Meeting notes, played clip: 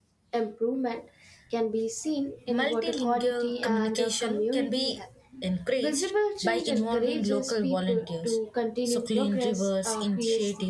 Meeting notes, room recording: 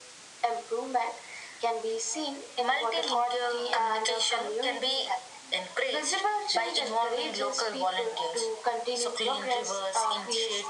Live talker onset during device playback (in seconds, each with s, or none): none